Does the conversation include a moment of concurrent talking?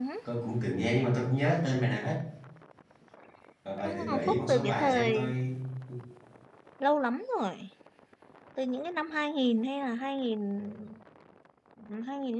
Yes, from 3.8 s

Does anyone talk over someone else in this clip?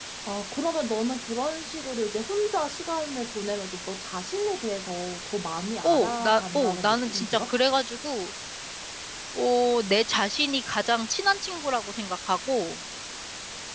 Yes, from 5.8 s

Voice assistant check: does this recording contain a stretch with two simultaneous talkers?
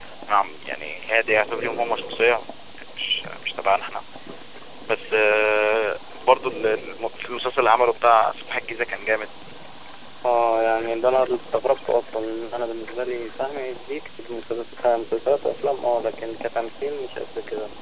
No

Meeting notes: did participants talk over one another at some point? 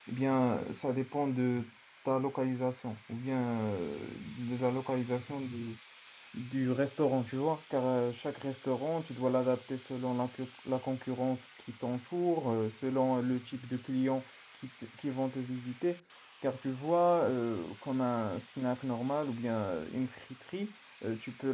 No

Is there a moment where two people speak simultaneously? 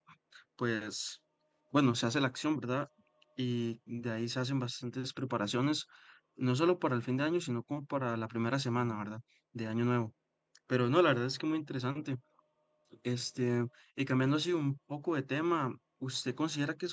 No

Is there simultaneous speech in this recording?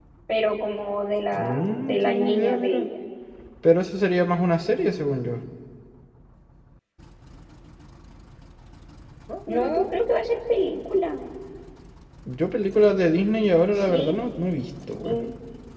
Yes, from 1.3 s

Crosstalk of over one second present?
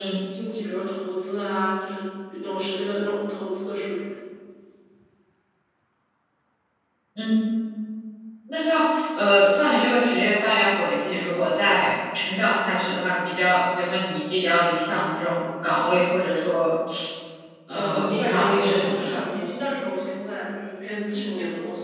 Yes, from 17.7 s

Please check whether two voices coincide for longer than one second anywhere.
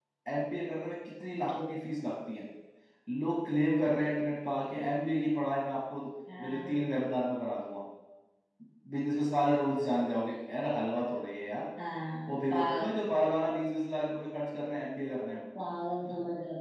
No

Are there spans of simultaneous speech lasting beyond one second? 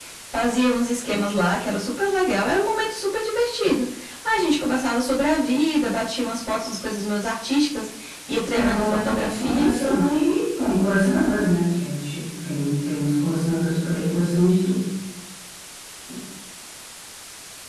Yes, from 8.5 s

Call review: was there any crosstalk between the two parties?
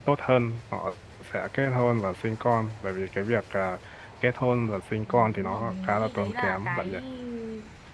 Yes, from 5.1 s

